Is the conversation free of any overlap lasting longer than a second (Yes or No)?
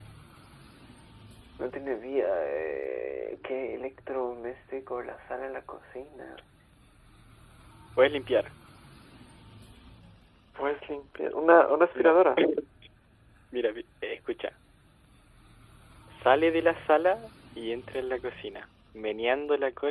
Yes